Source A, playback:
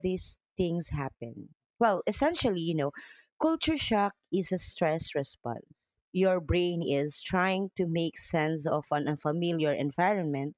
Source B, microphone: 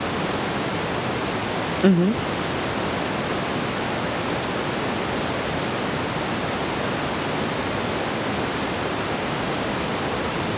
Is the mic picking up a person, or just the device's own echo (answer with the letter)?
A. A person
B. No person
A